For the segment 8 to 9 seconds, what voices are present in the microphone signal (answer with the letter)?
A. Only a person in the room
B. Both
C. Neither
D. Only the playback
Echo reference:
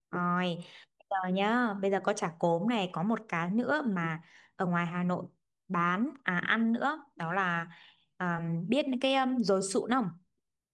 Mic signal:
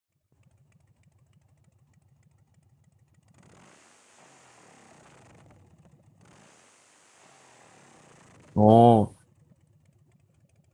A